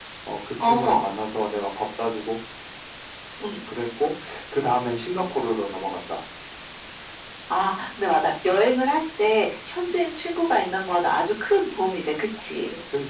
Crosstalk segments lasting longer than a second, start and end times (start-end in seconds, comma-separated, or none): none